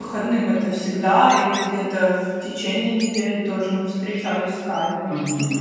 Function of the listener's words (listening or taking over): taking over